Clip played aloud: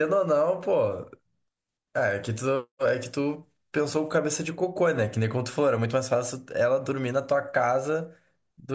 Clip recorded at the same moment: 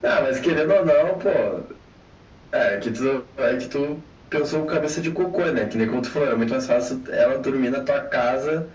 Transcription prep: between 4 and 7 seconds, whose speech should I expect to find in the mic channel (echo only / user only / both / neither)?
echo only